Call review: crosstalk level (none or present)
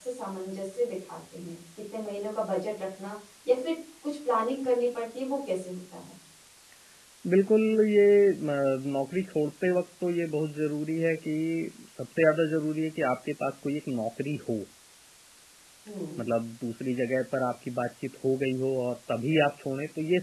none